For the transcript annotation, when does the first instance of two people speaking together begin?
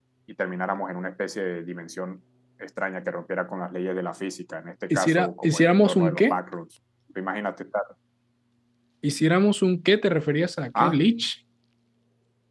4.9 s

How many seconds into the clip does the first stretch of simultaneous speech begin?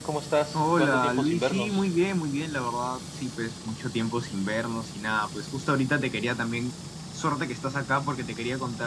0.5 s

